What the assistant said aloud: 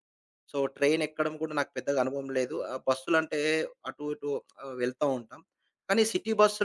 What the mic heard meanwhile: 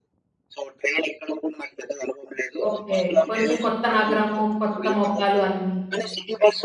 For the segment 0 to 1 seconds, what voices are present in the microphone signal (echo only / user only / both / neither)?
echo only